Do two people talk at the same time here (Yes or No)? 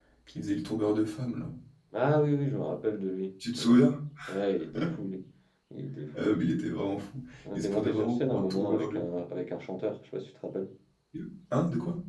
Yes